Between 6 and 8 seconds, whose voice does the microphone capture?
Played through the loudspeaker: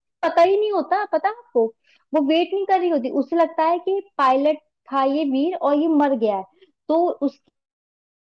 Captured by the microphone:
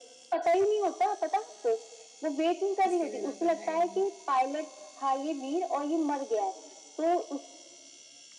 echo only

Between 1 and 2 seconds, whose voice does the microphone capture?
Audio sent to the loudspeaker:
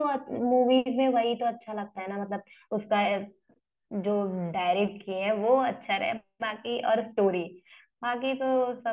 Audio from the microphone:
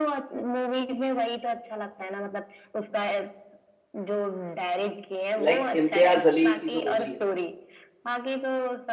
echo only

